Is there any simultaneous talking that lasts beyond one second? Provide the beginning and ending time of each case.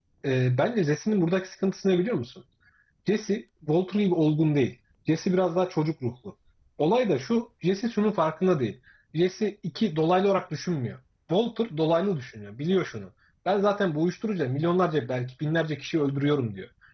none

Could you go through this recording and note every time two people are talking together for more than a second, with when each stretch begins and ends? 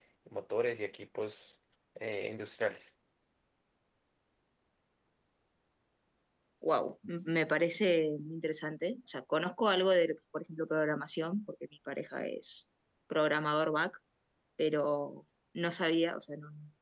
none

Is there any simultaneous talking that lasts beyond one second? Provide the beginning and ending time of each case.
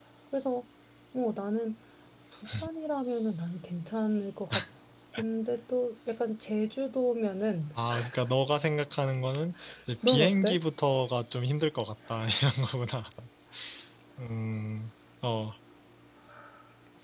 none

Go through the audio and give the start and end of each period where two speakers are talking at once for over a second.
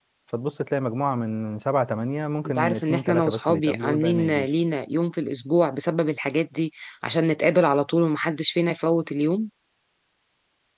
2.4-4.5

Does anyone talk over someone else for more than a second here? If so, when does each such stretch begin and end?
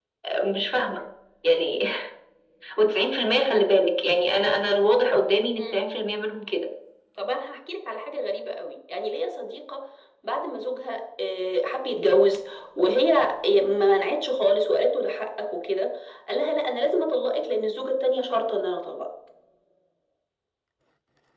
none

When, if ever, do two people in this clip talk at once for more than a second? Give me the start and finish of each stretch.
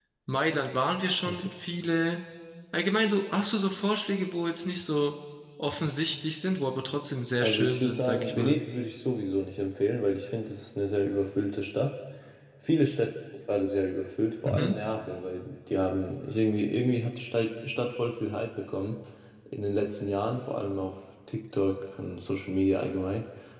7.4-8.6

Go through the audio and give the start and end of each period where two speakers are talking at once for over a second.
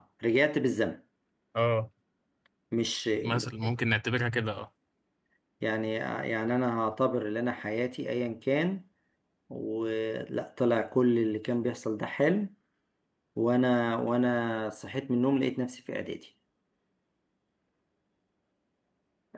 none

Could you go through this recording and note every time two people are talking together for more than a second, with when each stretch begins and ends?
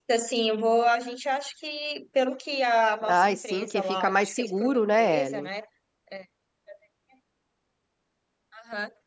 3.1-5.5

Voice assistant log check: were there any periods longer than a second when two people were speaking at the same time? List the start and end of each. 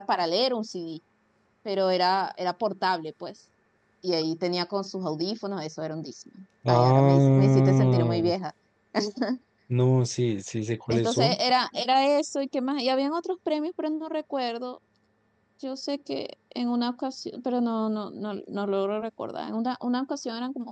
6.7-8.3

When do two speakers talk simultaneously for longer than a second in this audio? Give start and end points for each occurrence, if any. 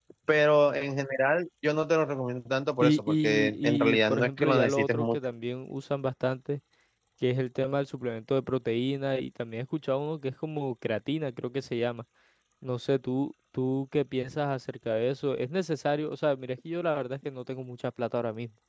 2.8-5.2

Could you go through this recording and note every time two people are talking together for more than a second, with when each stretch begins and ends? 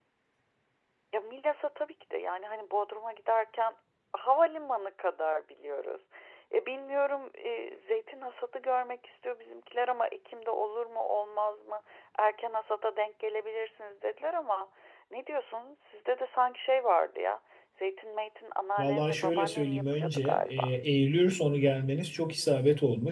18.8-20.7

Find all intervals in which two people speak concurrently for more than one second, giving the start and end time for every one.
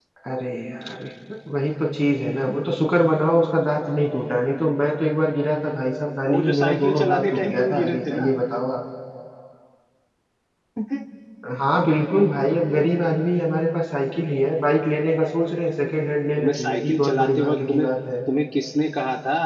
6.3-8.3, 16.4-17.9

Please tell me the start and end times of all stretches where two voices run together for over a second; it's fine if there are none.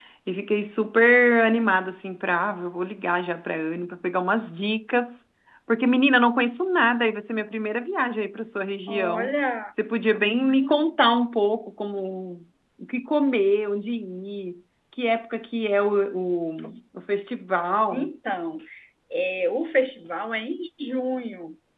none

